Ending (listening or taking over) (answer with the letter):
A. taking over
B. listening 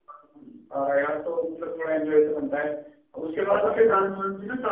B